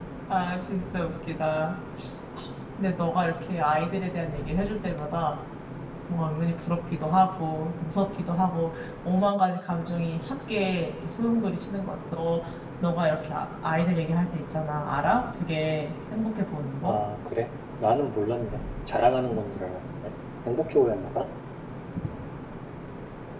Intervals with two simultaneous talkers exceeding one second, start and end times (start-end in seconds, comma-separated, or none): none